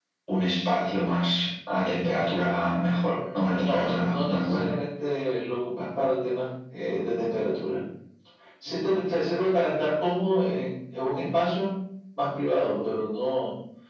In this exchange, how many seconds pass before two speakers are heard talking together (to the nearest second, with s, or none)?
3 s